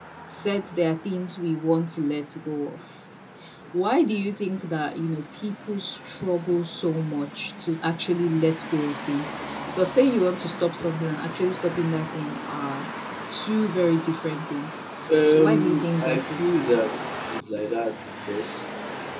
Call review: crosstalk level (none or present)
present